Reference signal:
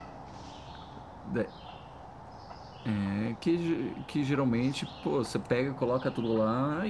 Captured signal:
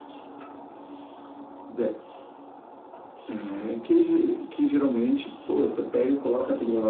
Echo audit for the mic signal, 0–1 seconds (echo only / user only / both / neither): neither